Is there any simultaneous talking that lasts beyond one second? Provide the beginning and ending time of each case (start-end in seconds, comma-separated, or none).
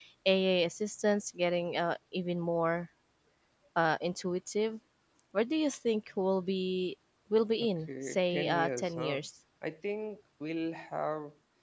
7.6-9.2